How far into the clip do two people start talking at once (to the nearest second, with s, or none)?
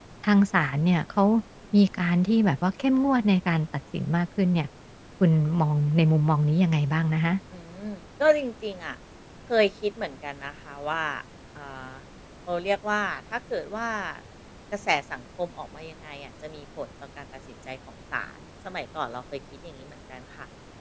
none